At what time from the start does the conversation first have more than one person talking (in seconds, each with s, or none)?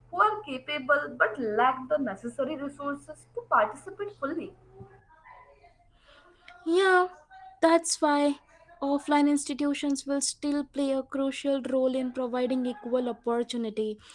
none